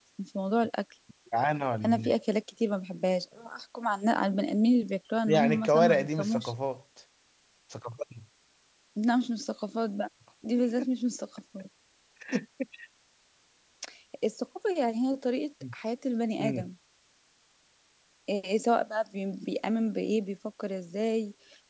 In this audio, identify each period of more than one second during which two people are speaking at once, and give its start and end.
5.3-6.5

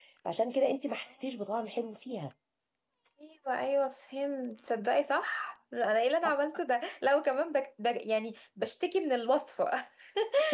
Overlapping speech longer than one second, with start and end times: none

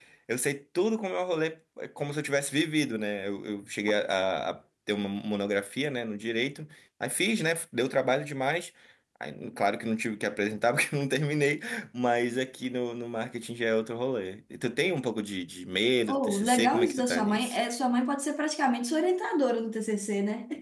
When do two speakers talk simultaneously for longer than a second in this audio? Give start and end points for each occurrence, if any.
16.1-17.6

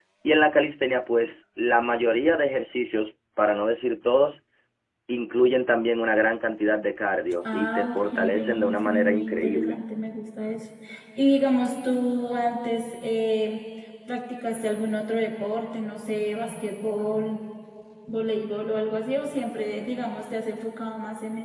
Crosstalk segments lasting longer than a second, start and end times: 7.5-9.8

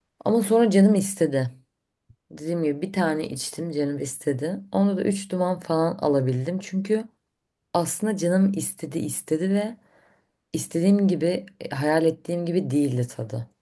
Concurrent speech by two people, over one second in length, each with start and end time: none

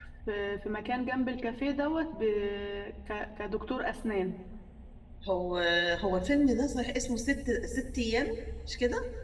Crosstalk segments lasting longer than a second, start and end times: none

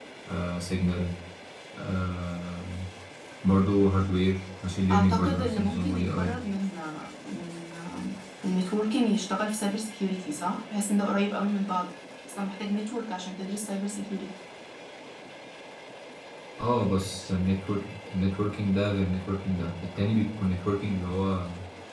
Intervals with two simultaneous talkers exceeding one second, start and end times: 4.9-6.3

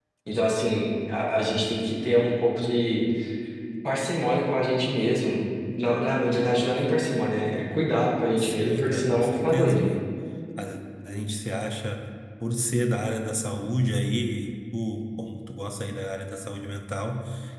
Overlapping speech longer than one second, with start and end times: 8.4-9.9

